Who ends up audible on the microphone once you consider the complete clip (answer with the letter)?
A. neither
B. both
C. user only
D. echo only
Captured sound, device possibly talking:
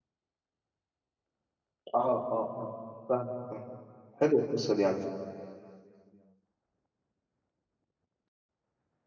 C